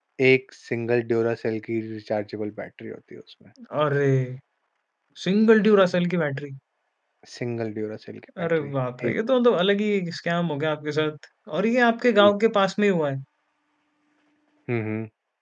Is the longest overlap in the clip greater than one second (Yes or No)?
No